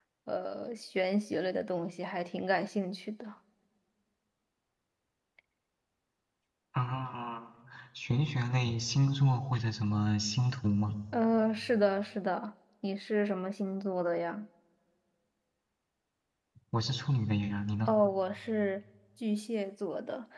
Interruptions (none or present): none